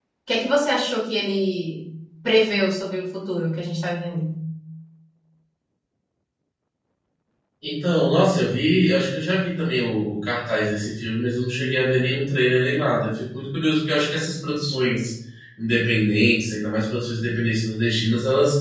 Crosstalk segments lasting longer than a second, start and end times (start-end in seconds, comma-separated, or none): none